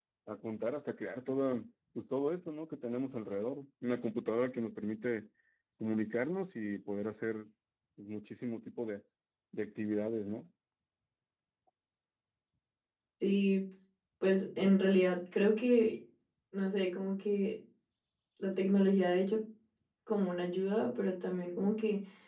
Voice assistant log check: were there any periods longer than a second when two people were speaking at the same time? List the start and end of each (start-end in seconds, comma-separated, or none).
none